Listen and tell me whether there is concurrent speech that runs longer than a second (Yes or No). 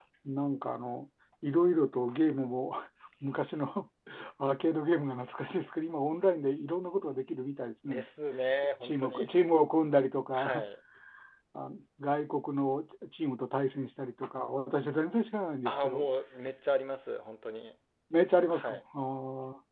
No